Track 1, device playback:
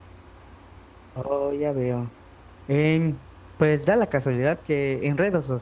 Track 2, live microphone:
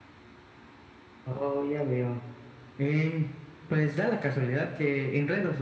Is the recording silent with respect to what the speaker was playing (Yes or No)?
No